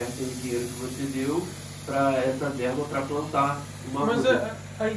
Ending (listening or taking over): taking over